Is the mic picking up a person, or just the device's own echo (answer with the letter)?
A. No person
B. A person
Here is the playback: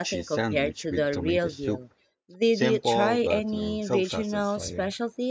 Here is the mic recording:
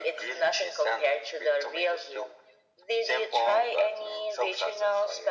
A